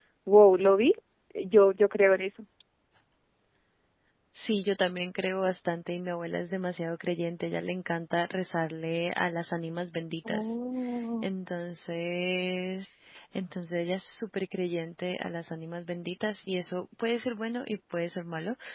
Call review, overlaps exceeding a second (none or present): none